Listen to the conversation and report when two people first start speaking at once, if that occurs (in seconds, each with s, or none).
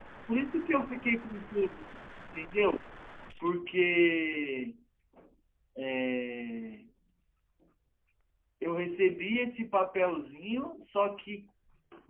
none